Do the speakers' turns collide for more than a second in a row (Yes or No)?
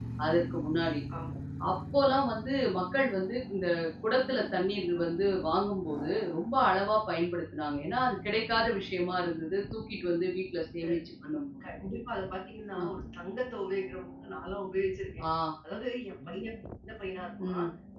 No